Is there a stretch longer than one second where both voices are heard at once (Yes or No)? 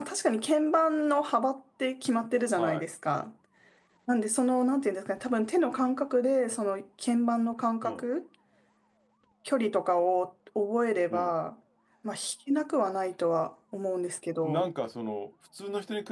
No